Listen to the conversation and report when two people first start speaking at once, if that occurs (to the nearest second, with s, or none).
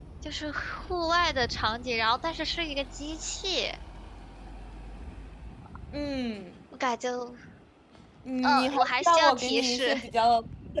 8 s